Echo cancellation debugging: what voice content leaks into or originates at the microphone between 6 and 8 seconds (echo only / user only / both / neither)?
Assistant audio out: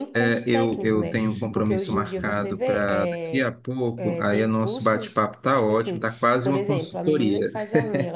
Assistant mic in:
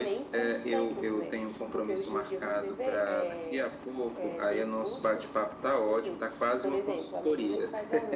echo only